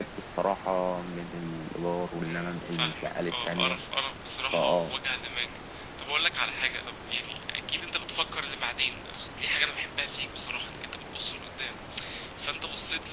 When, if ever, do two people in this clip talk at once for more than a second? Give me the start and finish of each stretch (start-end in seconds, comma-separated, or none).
2.2-3.8